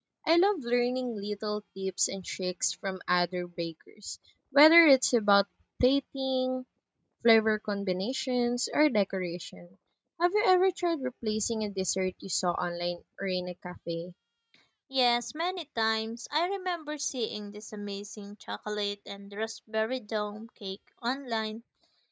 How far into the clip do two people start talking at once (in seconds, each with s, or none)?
none